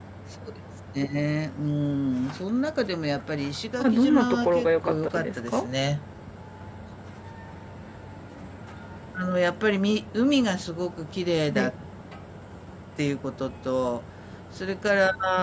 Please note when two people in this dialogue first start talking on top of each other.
3.8 s

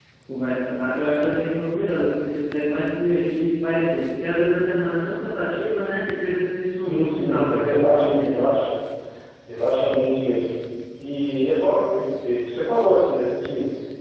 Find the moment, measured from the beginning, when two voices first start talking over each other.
6.8 s

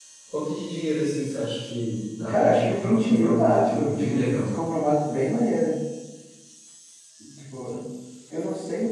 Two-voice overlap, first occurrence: 2.3 s

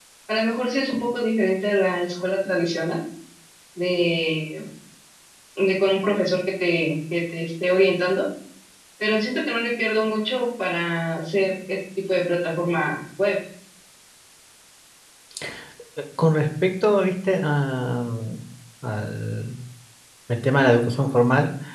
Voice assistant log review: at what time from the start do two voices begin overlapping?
none

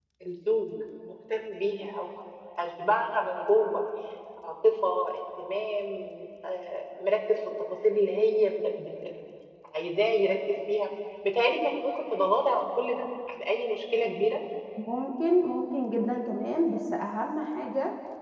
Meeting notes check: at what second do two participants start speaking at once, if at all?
none

